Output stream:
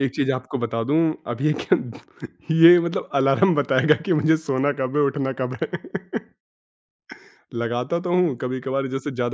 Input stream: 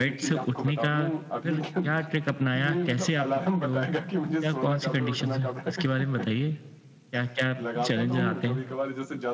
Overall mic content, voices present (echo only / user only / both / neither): both